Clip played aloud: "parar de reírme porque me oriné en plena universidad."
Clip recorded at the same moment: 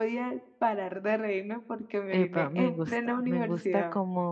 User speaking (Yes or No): Yes